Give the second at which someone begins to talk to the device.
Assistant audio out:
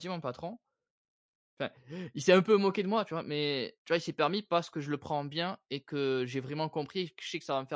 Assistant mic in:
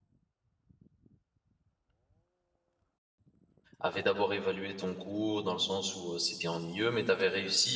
3.8 s

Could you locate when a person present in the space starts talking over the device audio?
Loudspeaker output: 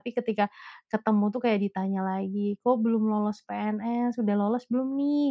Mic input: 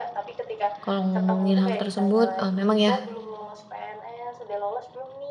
0.8 s

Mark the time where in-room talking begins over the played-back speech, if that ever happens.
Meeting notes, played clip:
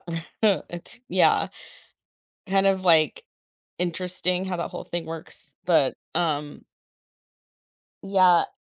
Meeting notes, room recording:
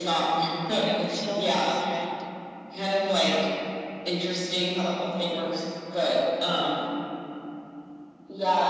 0.7 s

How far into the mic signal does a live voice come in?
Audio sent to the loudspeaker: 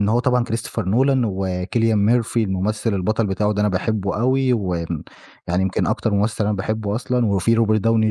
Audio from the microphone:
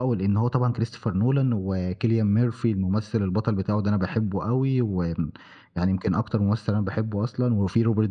none

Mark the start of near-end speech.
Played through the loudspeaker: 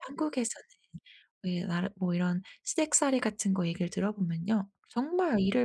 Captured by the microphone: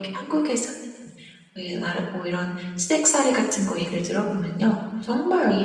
none

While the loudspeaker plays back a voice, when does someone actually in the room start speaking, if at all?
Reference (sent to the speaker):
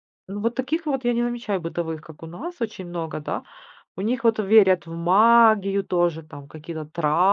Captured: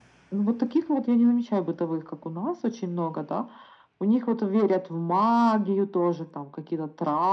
none

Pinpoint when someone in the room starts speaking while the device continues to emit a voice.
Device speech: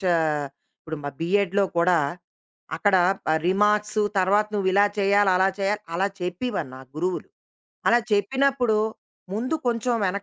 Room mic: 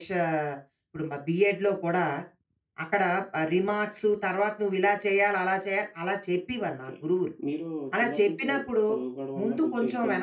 6.7 s

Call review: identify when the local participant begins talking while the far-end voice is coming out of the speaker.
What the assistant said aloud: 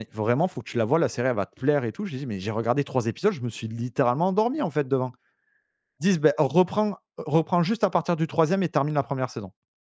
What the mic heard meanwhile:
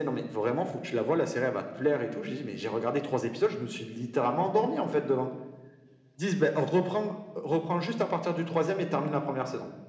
none

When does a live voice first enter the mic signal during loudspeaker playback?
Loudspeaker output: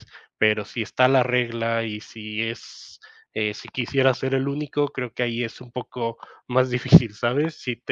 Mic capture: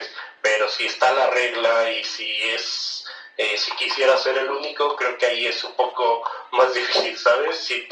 none

